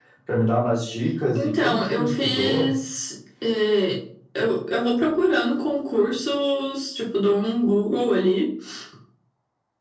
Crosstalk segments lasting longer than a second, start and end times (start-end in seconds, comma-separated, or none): 1.4-2.7